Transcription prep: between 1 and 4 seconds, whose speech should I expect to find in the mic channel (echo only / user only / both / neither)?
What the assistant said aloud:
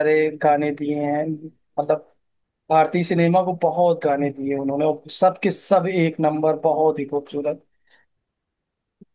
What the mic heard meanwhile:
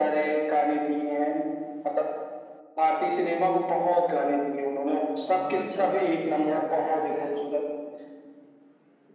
echo only